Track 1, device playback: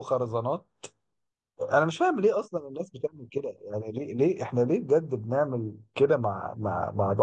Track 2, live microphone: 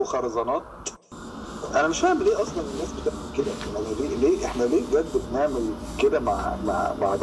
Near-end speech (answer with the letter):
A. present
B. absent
B